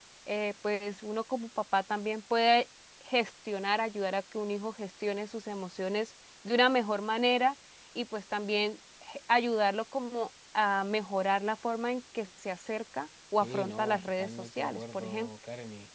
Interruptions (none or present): present